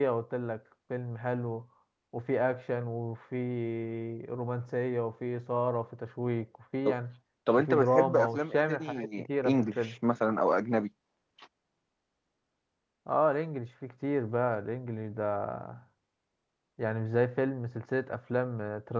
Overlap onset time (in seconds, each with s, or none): 7.5 s